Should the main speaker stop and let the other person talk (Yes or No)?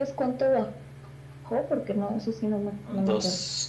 Yes